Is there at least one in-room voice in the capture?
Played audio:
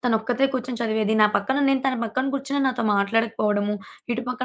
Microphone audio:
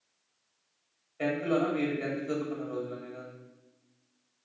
Yes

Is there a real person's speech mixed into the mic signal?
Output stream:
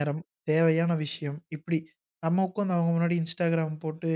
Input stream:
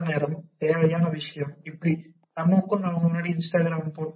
No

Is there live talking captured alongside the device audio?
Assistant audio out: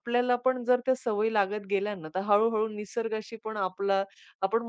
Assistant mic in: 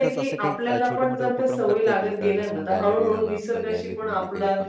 Yes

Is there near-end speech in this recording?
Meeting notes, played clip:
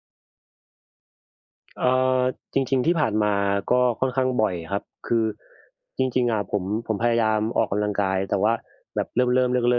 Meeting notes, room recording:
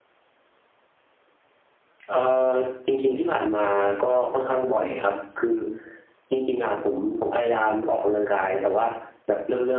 No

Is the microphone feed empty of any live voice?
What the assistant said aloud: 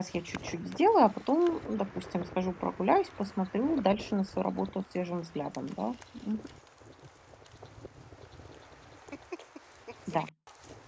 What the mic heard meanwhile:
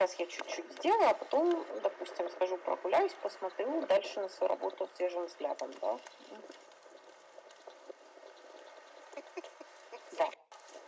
Yes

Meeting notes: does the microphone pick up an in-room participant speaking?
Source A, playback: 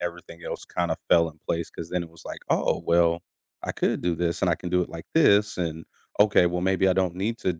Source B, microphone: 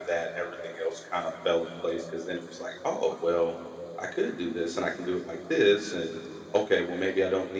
No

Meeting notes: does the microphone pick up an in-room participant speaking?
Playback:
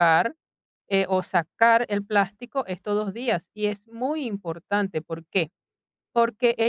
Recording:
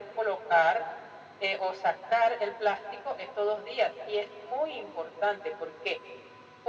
No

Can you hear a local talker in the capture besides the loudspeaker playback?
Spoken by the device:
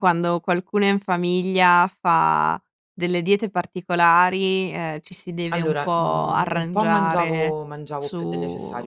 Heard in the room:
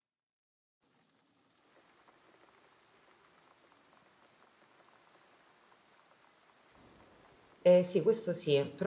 Yes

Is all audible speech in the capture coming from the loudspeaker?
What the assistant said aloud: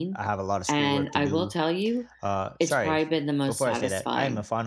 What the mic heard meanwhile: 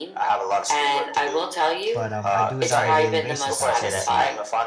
No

